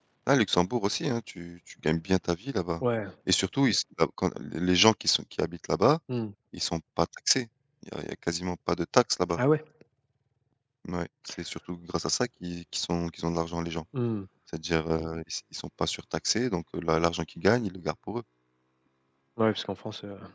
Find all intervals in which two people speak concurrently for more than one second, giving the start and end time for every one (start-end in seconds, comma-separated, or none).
none